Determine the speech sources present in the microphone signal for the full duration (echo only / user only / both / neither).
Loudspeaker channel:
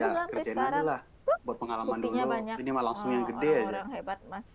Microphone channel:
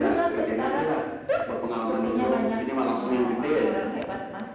echo only